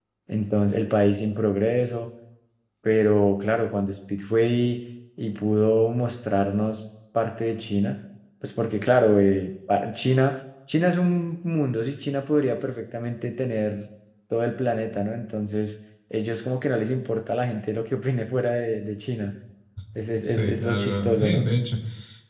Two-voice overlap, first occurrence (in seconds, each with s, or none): 20.2 s